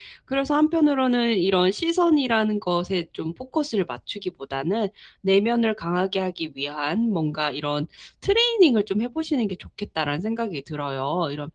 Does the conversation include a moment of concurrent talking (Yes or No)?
No